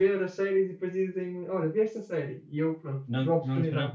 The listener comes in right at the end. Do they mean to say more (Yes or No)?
Yes